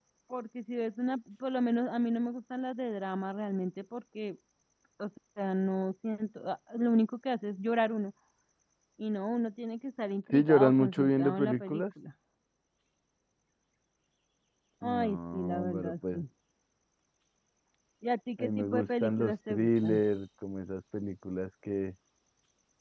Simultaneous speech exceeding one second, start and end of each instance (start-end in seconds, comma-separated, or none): 10.3-11.8, 14.8-16.2, 18.4-20.0